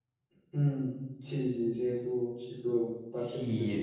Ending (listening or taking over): taking over